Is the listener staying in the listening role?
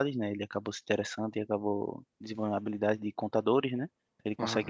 Yes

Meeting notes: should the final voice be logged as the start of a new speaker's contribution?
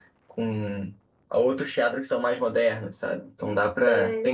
No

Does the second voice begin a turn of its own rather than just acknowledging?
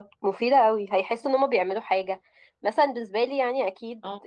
No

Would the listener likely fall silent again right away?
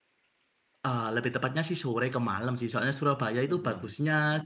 Yes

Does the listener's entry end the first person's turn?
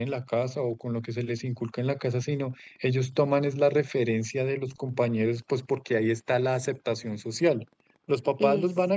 No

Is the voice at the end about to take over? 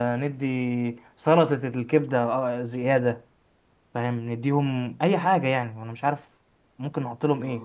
Yes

